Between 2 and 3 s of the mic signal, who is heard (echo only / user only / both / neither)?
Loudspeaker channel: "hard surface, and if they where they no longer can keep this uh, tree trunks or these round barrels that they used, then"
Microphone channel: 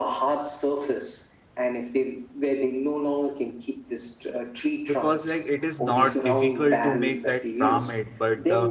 echo only